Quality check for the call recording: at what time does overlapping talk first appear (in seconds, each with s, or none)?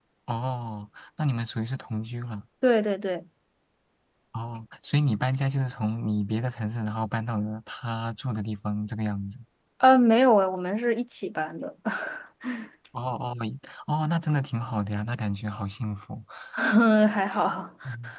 none